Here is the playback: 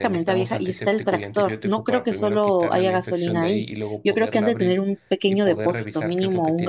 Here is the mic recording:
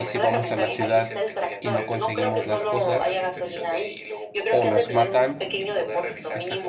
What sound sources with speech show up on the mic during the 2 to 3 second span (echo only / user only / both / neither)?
both